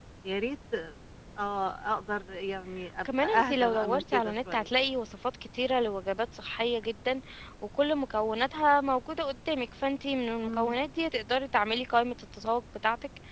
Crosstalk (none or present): present